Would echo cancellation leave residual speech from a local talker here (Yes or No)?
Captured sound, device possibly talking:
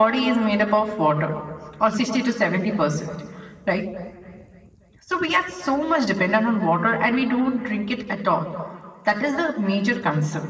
No